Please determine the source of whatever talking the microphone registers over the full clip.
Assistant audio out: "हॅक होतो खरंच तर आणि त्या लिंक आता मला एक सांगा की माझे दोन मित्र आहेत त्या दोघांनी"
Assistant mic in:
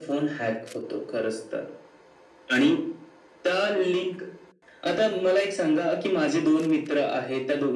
echo only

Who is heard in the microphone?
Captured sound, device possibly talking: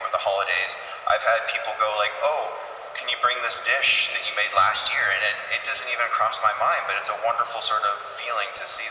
echo only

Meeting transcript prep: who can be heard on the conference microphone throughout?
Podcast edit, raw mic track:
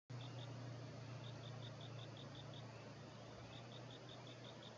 neither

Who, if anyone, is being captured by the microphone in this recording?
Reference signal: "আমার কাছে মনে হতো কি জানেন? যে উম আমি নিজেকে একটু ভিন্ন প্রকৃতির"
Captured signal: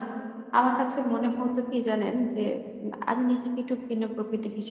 echo only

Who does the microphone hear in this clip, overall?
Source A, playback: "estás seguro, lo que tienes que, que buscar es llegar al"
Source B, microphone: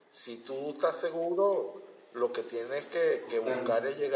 both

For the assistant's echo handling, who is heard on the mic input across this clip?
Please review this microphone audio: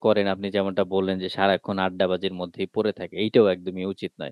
user only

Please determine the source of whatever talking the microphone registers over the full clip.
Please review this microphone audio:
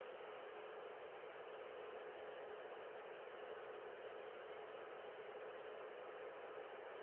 neither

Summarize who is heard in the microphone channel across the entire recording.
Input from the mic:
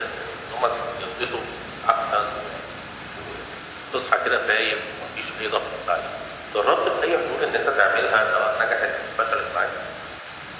echo only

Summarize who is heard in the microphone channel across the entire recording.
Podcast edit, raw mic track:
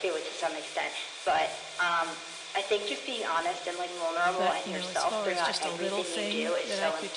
both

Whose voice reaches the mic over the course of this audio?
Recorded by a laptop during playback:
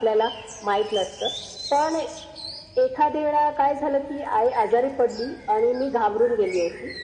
echo only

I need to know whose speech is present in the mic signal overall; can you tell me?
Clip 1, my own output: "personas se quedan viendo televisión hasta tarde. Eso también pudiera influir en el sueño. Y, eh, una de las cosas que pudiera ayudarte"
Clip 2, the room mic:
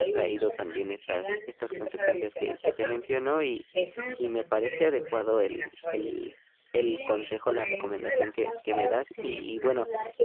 both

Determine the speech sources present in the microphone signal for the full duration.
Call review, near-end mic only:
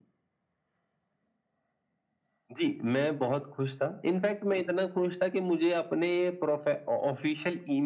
echo only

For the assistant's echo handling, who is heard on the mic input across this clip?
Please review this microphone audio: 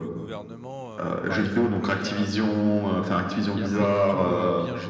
both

